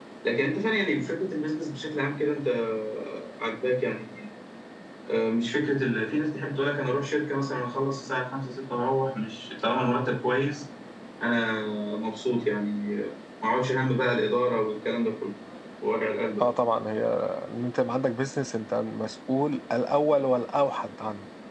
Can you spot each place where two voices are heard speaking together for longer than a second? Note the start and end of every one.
none

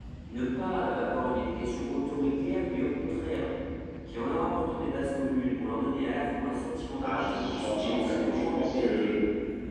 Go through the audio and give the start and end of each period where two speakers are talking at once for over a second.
7.0-9.1

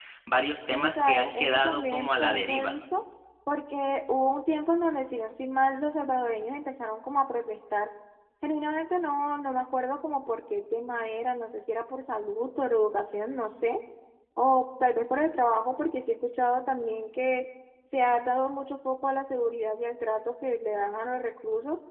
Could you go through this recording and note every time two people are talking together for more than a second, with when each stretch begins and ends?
0.7-2.8

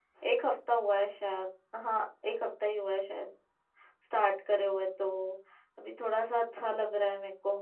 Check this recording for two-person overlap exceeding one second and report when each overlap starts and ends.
none

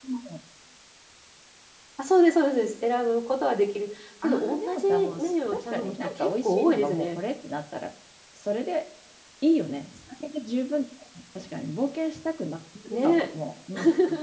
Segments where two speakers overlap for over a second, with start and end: 4.2-7.2

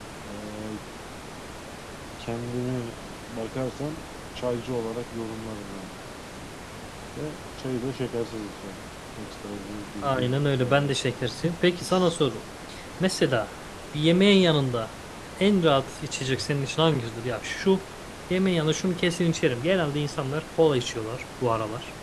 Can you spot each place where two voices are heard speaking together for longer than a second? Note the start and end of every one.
10.0-11.3

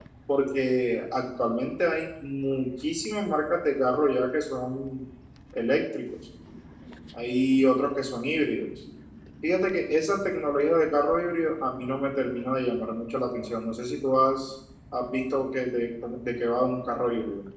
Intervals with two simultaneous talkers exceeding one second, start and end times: none

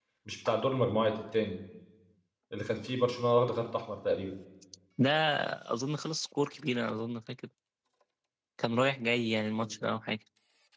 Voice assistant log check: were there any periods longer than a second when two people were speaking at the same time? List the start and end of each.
none

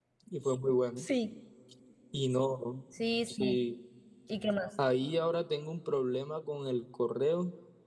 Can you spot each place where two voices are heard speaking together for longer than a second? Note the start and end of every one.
none

